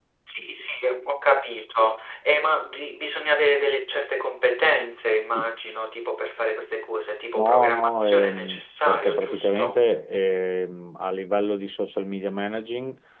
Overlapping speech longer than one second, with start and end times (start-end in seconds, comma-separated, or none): 7.4-9.8